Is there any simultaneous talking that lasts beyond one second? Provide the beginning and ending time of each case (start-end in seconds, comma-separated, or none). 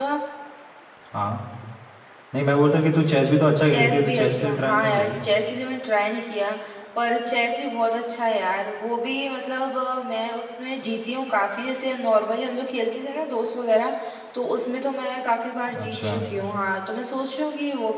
3.7-5.3